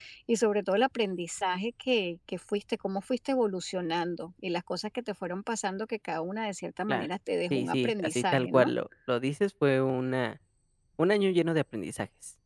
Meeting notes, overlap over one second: present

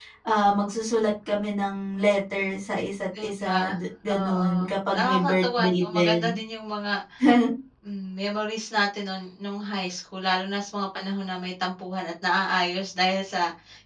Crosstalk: present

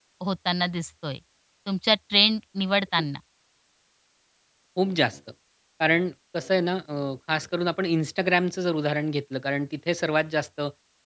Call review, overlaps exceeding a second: none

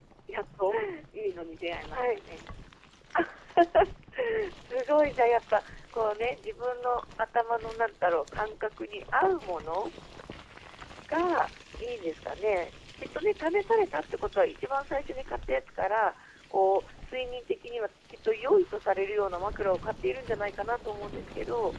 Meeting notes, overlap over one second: none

